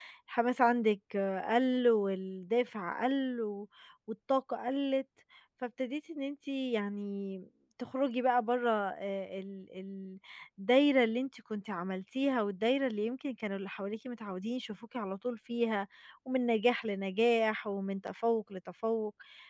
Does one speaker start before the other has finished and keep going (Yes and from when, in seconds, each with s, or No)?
No